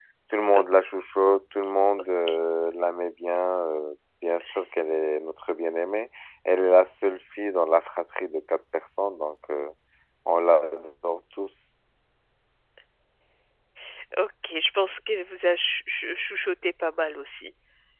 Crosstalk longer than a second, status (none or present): none